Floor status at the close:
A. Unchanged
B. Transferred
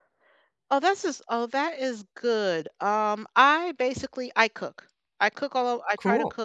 A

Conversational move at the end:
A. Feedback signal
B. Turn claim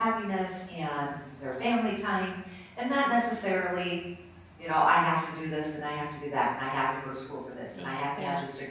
A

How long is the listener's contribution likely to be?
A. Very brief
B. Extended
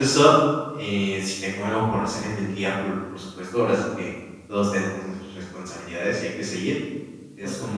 A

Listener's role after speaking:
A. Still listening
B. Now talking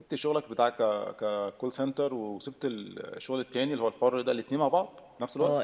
B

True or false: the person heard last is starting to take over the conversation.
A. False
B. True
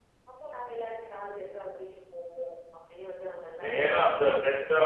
B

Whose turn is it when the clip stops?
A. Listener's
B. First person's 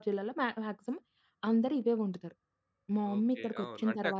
A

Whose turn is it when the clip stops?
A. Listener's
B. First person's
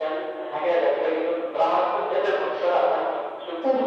A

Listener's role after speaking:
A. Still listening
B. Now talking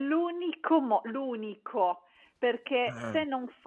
A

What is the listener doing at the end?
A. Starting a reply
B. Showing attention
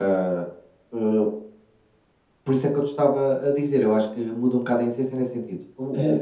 B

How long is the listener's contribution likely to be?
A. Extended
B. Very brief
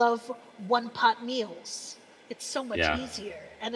B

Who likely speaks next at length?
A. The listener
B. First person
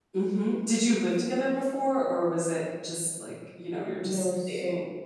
A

